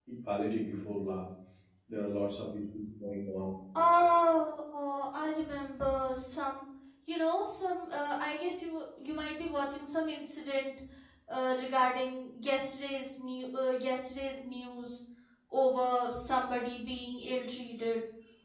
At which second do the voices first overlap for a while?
none

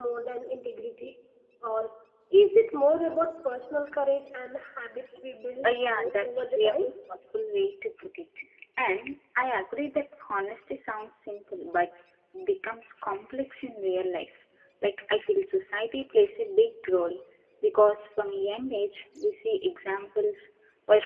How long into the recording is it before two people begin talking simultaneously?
5.6 s

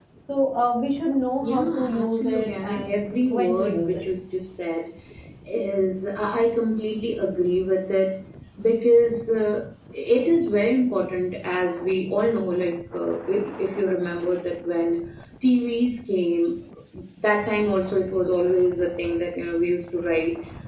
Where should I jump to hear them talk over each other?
1.4 s

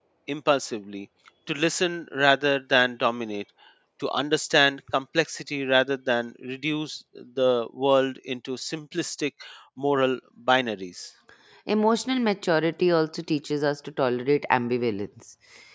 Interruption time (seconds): none

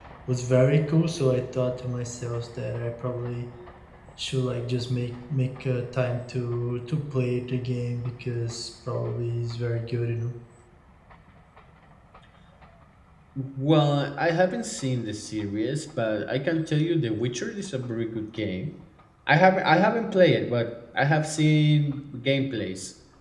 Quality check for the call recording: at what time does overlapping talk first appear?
none

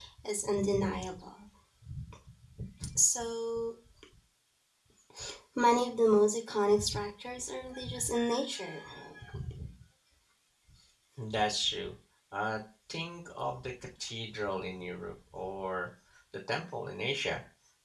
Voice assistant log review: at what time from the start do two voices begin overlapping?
none

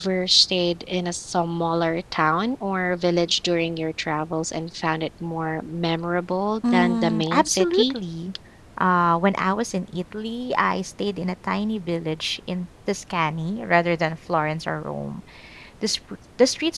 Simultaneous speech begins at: 6.6 s

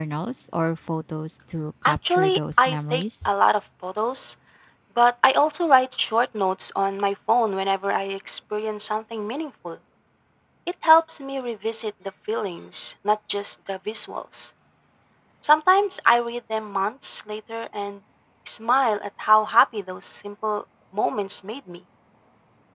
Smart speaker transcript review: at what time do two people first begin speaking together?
1.9 s

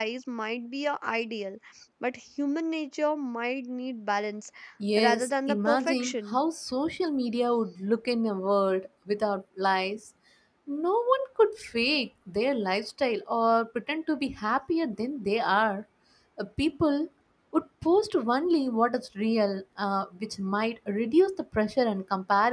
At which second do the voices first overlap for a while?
5.0 s

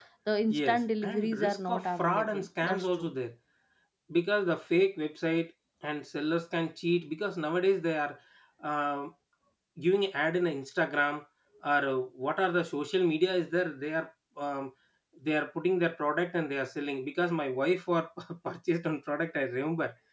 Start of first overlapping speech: 0.5 s

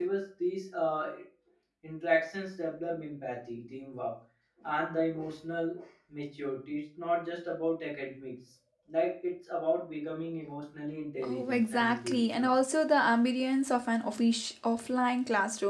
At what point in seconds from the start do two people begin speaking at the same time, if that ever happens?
11.2 s

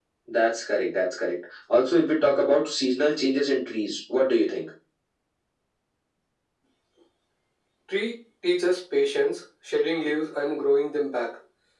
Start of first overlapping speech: none

